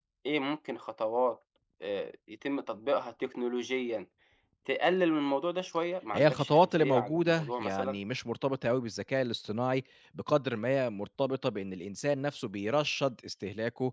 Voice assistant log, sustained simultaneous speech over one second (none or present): present